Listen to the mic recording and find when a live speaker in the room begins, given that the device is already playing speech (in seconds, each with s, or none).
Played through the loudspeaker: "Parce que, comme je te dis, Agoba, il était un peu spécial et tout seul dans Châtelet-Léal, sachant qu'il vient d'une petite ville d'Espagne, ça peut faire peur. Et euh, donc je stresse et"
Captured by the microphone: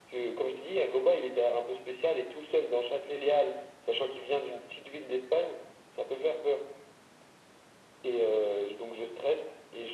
none